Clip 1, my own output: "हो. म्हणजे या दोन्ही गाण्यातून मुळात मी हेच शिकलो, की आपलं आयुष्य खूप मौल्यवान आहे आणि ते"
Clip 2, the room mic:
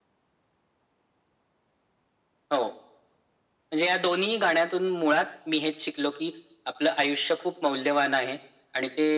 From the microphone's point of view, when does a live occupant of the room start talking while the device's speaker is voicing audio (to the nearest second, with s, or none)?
none